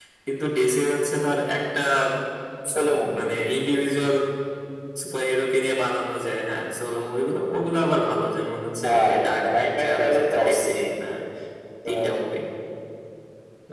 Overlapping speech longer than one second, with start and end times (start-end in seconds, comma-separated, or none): 8.8-10.8